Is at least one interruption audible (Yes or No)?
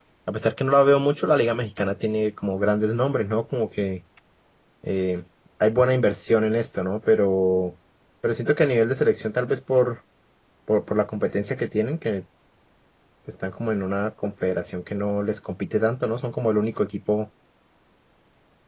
No